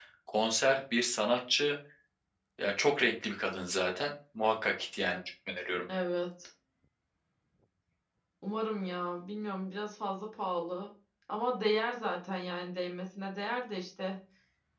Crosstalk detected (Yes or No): No